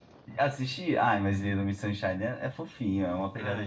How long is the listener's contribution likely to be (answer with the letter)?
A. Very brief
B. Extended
B